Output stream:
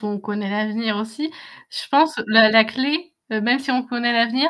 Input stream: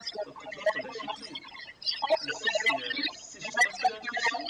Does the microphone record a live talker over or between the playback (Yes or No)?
Yes